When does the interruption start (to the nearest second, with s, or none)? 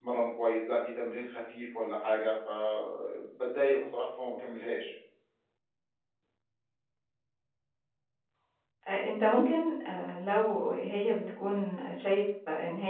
none